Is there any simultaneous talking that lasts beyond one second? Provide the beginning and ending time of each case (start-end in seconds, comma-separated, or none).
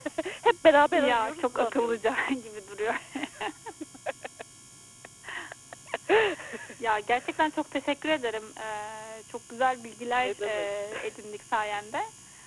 0.9-2.1